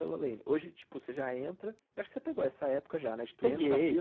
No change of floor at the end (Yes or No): Yes